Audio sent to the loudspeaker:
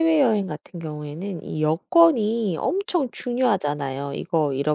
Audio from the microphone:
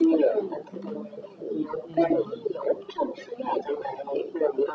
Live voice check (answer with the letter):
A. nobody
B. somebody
B